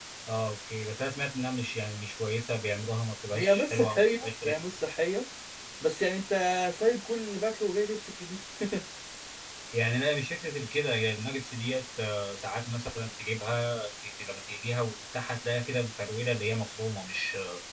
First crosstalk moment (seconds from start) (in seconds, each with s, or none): 3.3 s